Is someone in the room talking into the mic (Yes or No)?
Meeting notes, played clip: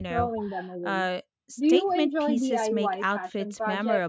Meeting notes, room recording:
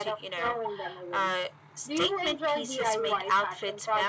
No